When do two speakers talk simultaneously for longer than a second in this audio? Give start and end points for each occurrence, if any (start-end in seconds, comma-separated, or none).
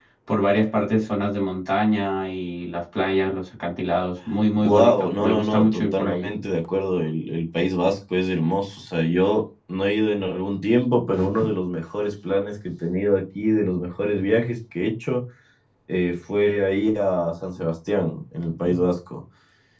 4.6-6.3